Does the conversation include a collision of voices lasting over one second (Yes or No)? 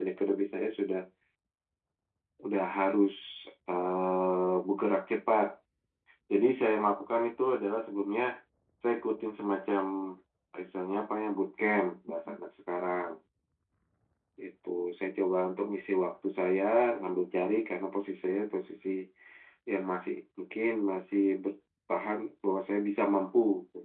No